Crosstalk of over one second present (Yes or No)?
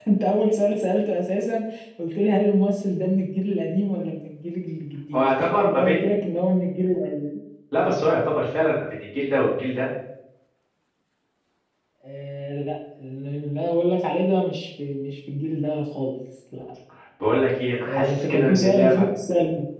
Yes